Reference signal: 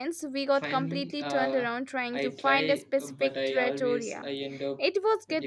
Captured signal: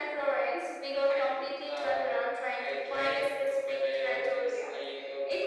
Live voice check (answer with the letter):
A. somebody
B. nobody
B